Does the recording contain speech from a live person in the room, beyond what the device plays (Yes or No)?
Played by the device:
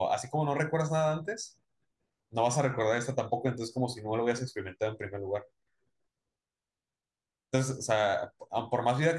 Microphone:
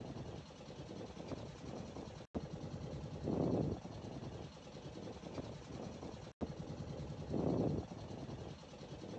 No